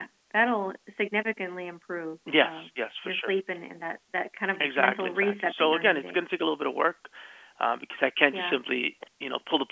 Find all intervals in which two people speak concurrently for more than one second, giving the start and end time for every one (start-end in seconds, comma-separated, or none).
4.6-6.2